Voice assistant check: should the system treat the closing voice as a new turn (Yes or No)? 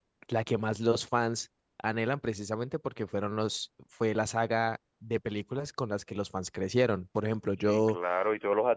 Yes